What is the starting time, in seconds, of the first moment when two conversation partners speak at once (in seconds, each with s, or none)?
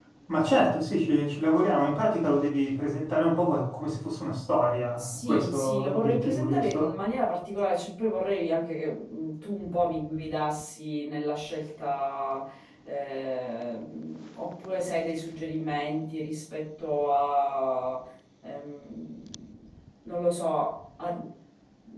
5.0 s